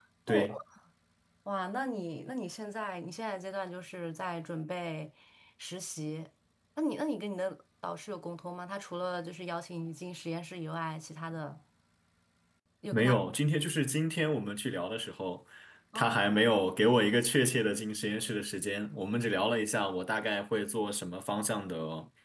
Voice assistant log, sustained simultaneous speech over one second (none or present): none